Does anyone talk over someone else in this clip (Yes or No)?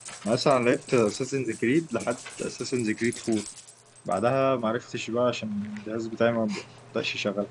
No